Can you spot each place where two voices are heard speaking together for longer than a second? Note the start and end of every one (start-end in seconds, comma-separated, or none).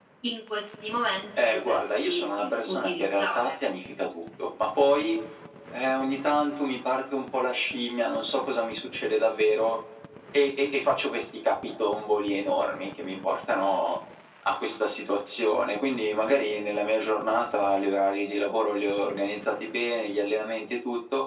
1.5-3.6